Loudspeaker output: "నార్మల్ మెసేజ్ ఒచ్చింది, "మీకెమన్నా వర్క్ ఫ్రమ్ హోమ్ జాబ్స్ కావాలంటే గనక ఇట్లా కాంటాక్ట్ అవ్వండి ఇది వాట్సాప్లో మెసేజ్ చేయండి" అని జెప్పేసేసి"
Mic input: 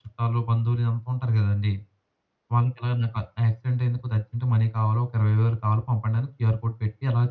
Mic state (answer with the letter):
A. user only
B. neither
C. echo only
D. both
A